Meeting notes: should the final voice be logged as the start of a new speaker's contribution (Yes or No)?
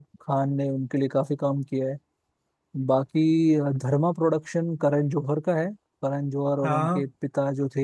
No